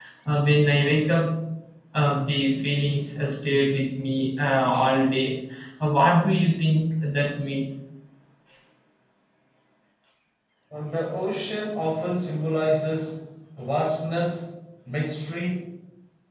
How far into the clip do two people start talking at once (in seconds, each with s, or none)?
none